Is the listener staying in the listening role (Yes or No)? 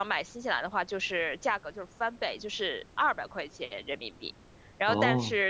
Yes